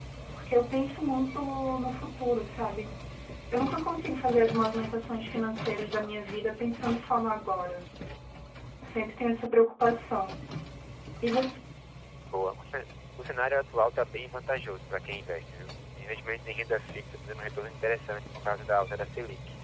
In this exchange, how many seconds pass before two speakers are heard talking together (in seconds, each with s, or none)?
none